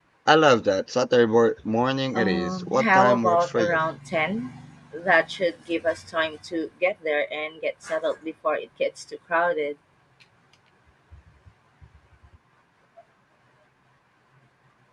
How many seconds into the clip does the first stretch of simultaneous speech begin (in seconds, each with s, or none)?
2.1 s